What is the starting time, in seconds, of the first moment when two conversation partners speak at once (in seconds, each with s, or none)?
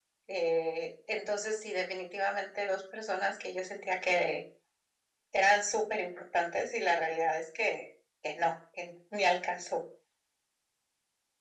none